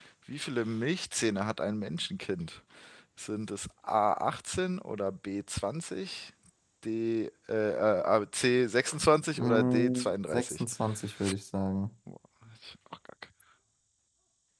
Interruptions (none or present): present